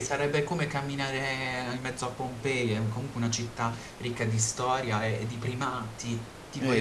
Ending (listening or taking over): taking over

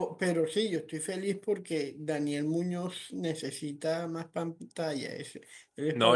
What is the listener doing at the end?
taking over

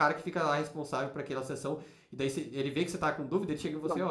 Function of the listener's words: listening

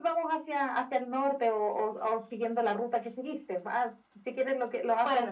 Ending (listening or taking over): listening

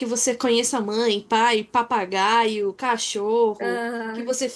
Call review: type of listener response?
listening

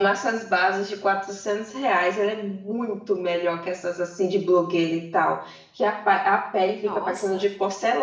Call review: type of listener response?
listening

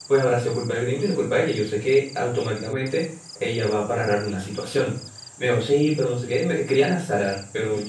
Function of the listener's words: taking over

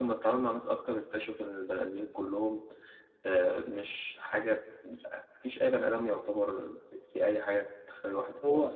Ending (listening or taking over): taking over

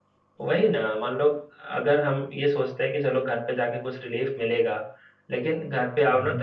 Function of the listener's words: listening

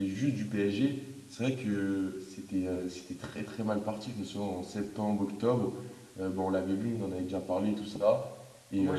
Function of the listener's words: taking over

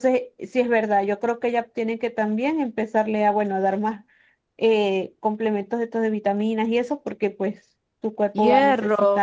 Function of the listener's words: taking over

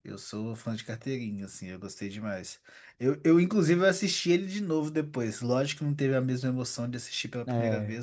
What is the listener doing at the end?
listening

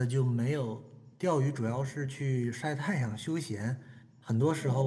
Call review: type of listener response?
listening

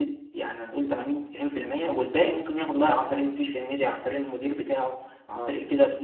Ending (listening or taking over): listening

